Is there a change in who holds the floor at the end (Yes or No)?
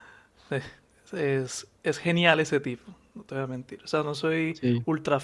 No